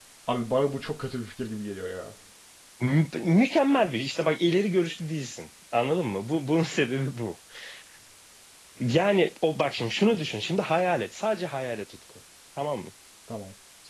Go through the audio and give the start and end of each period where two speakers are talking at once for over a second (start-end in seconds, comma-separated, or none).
none